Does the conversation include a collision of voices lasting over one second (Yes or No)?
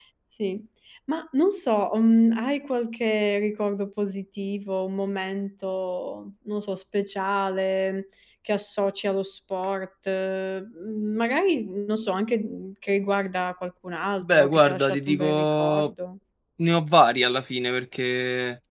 Yes